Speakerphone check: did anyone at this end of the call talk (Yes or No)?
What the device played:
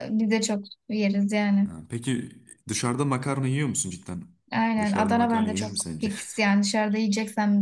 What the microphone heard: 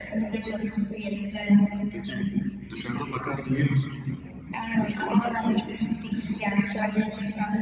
No